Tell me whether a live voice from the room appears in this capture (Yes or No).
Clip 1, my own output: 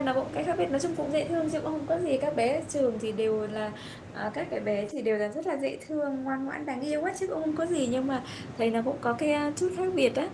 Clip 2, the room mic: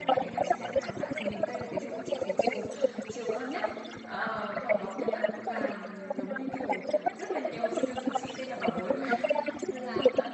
Yes